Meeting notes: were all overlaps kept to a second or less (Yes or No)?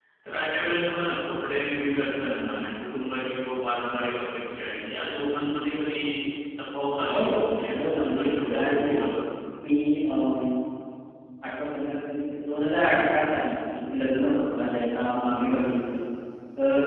No